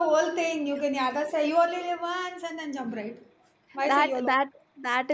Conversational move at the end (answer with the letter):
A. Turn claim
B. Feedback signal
A